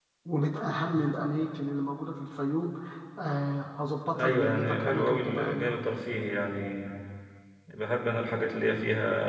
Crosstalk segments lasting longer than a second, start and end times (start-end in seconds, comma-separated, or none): 4.2-5.8